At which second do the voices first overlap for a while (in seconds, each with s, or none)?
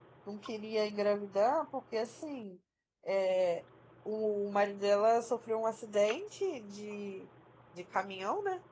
none